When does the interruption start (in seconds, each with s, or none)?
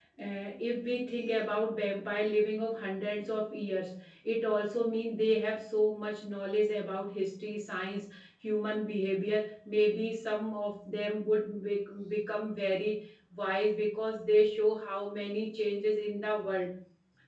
none